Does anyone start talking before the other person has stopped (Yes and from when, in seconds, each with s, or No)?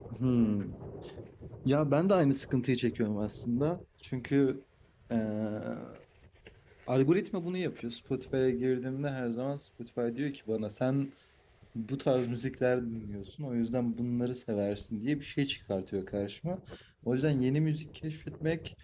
No